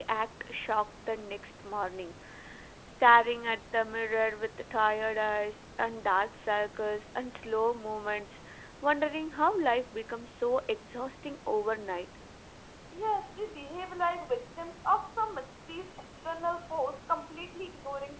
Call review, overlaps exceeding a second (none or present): none